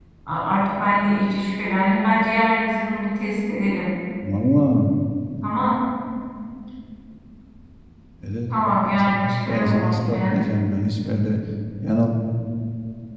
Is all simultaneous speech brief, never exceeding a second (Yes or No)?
No